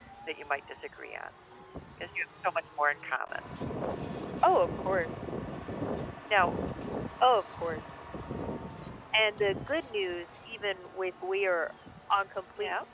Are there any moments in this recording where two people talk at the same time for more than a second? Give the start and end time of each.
none

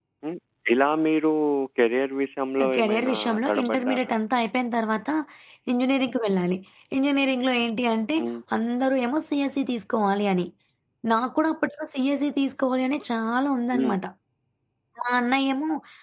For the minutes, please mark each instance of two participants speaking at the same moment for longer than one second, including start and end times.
2.6-4.1

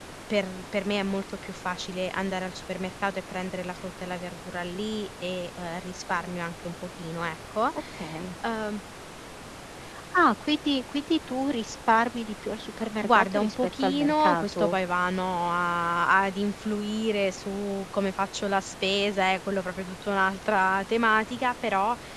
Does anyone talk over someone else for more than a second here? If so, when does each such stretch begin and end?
13.0-14.8

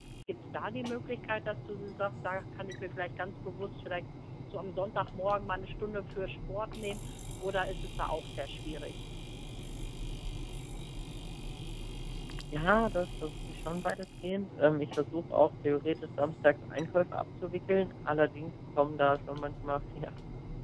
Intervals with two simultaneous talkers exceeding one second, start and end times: none

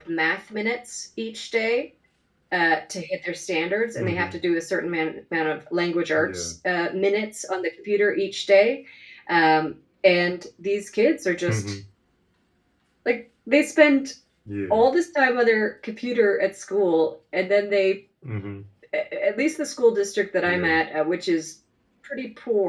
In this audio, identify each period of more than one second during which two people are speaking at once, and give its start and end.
none

